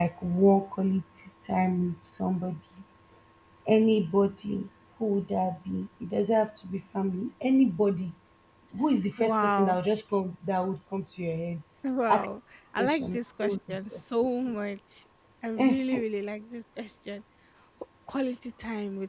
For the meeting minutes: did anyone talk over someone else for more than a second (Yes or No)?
Yes